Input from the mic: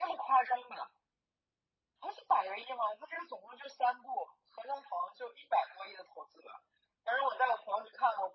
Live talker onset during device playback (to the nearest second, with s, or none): none